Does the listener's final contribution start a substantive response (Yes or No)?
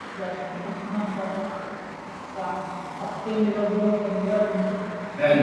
Yes